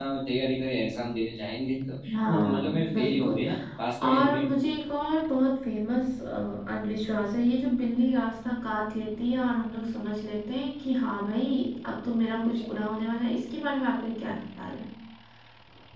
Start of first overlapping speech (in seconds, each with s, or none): 2.1 s